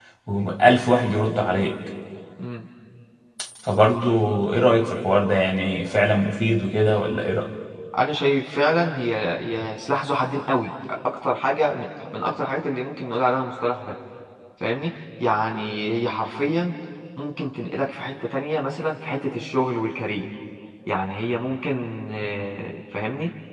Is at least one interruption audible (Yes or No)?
No